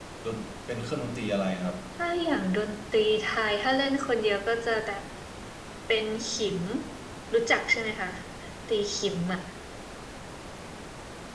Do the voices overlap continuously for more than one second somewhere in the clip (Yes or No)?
No